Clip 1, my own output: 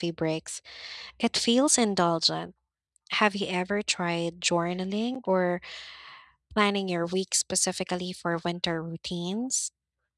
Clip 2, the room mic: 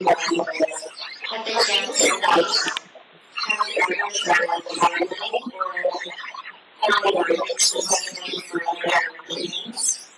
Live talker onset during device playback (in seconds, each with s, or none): 1.3 s